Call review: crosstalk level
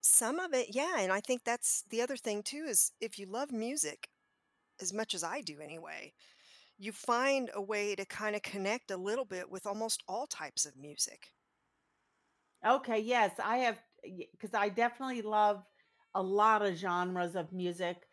none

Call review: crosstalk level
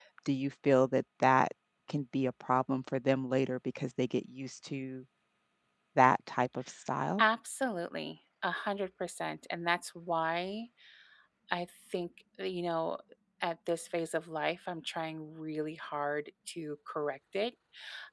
none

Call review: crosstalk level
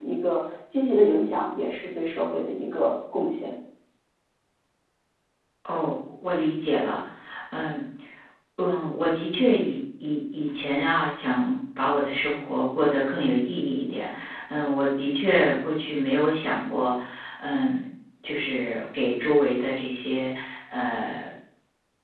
none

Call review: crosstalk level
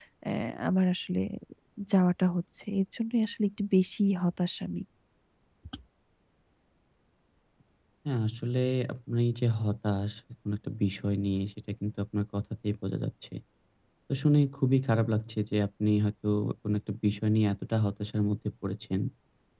none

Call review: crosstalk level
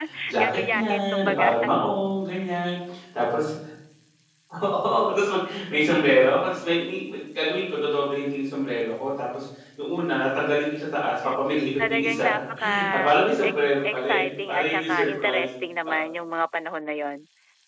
present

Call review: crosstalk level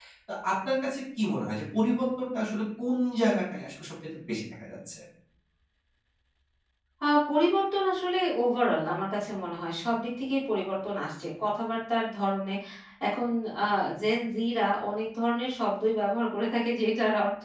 none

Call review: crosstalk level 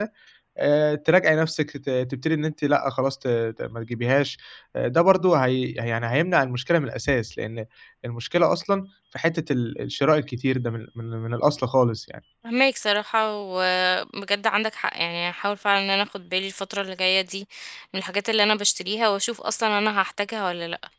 none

